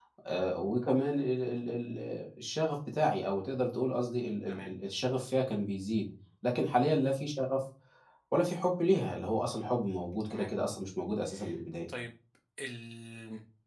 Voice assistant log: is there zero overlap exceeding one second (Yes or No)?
Yes